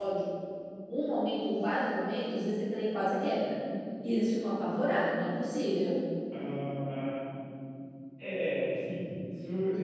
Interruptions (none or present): none